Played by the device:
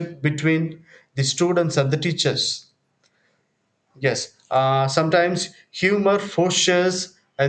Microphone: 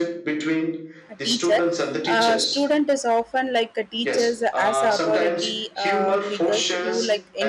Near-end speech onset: 1.1 s

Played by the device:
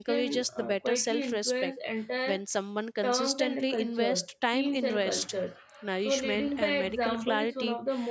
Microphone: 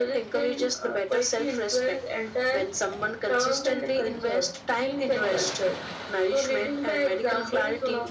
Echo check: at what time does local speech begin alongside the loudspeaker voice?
none

